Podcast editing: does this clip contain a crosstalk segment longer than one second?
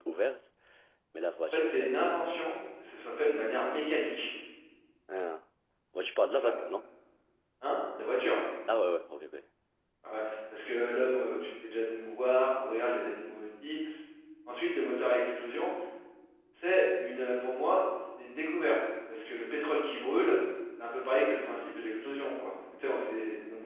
No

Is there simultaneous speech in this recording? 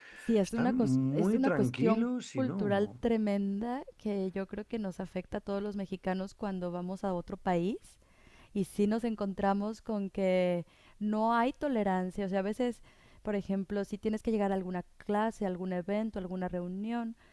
Yes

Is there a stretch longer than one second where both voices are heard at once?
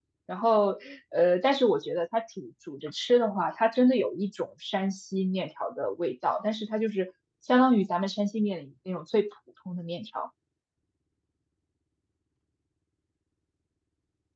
No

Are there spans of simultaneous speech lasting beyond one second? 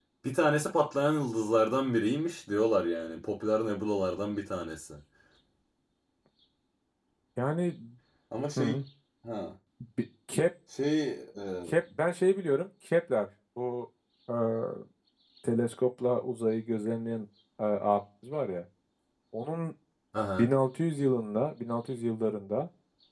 No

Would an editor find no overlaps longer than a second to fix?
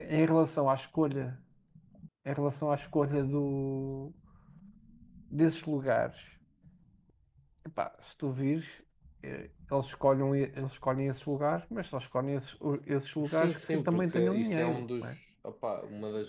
No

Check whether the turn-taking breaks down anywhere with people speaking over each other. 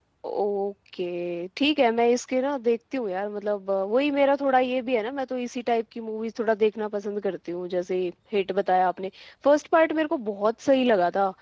No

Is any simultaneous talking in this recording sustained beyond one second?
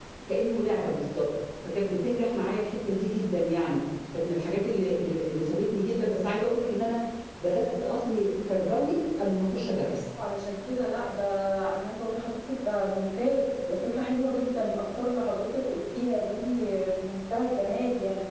No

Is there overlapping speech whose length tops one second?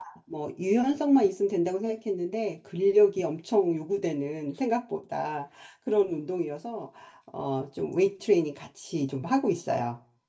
No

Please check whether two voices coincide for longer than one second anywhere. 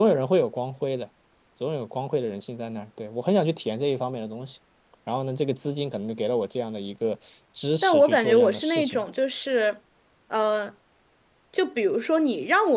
Yes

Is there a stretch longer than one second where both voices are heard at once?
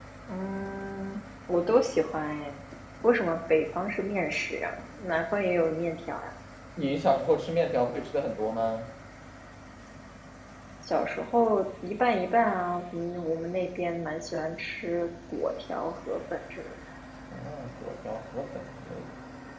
No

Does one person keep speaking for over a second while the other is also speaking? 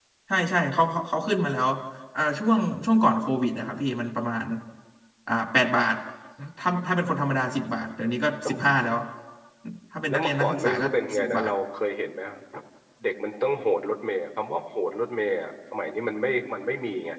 Yes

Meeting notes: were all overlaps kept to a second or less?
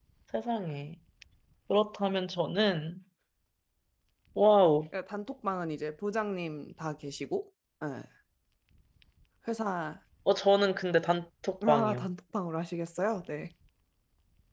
Yes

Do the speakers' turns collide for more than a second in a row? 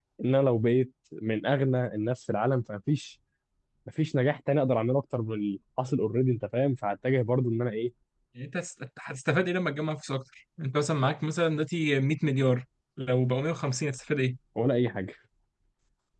No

